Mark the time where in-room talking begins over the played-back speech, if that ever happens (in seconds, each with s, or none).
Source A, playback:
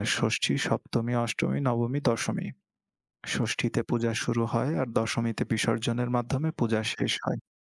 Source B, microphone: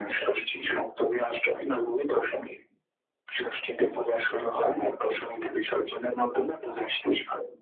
4.2 s